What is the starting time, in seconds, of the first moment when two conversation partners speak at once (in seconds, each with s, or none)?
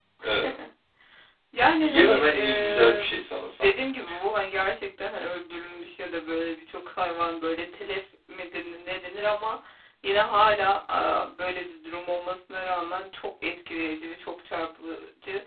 1.8 s